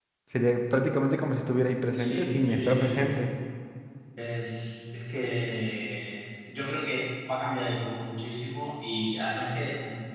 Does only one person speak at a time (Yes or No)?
No